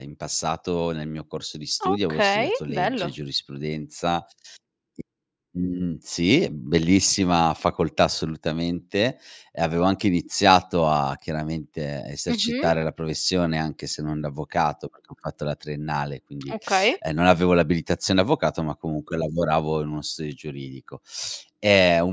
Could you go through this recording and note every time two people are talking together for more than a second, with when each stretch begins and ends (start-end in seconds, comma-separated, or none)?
1.8-3.1